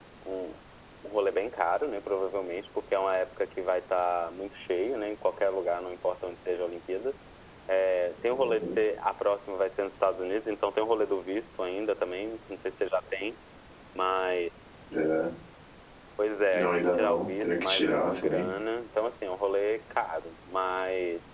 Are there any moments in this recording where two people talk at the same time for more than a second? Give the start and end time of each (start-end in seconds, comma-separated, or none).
16.5-18.5